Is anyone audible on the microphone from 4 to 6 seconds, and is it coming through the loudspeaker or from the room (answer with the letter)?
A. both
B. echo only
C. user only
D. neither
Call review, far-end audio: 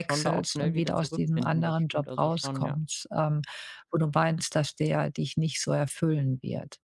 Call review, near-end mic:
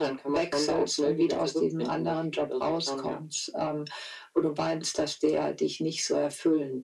B